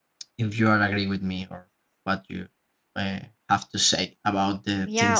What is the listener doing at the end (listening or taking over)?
taking over